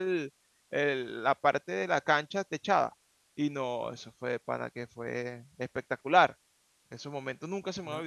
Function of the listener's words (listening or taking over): taking over